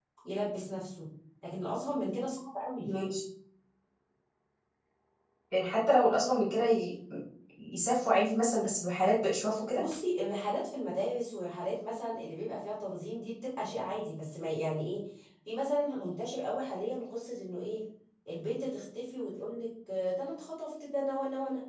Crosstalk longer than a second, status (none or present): none